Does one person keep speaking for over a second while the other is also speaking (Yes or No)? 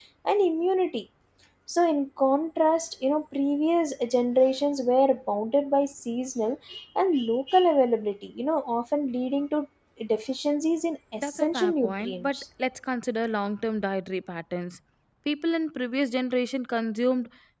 Yes